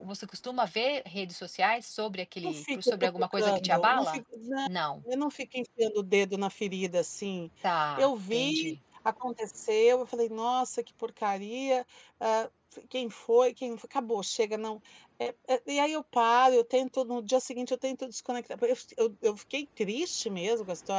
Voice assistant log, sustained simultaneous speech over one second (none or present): present